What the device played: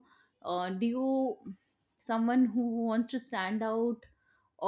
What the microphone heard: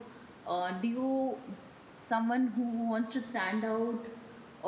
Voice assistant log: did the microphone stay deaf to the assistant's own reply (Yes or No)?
No